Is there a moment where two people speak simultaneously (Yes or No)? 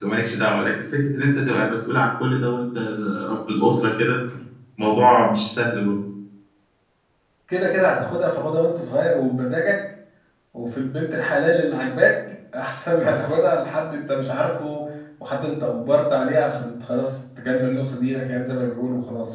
No